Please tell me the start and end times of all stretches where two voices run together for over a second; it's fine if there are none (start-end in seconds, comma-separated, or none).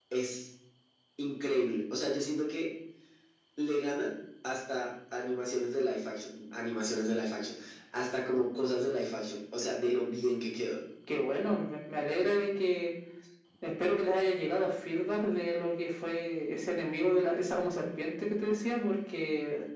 none